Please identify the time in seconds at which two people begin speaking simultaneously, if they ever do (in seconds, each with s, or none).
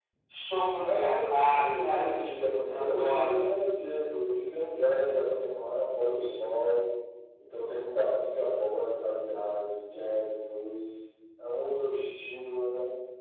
0.8 s